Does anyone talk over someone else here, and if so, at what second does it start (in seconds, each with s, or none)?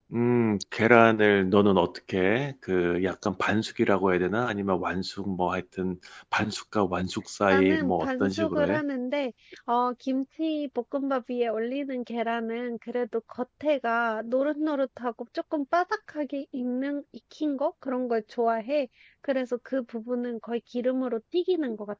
7.5 s